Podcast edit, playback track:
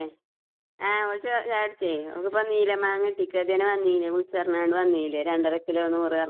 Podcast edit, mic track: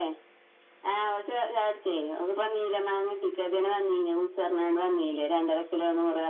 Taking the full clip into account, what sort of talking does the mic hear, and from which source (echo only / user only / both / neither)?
echo only